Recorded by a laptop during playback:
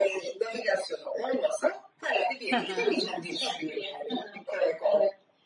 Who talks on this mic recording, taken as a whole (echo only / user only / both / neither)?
both